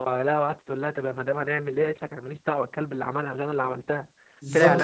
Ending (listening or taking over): listening